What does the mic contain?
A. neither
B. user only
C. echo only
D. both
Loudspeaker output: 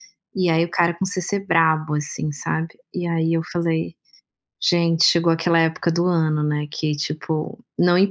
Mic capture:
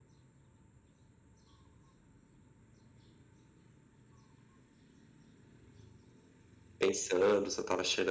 B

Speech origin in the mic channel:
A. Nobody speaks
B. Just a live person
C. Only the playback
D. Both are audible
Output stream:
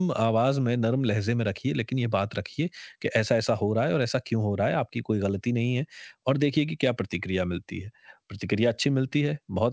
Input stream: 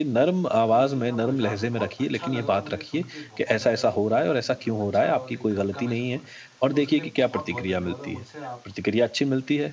D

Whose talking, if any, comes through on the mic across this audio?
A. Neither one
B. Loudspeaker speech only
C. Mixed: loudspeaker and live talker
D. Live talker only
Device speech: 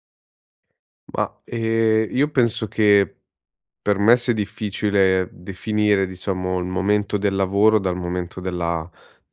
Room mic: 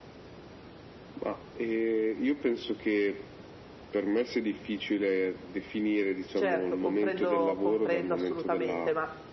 C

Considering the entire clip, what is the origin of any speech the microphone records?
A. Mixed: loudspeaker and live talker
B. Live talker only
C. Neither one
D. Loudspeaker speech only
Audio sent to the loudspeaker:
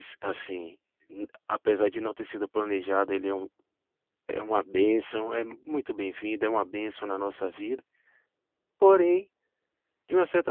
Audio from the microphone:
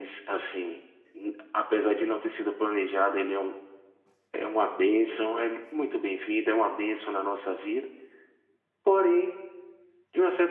D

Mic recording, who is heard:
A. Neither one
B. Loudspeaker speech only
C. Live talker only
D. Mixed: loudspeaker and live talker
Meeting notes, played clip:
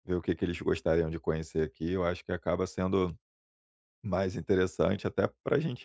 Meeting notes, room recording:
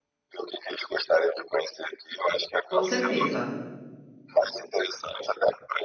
D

